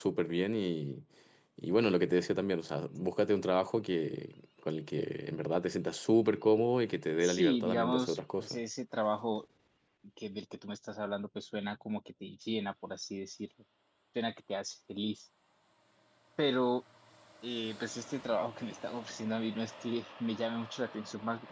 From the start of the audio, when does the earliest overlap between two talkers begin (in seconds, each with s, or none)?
7.2 s